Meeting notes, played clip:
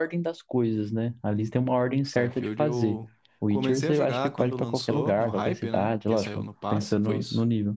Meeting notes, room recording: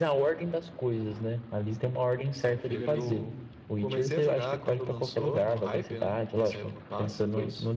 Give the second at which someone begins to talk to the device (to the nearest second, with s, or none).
3 s